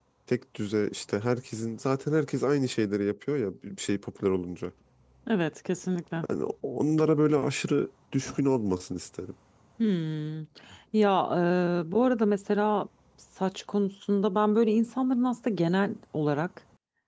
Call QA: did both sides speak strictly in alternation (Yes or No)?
Yes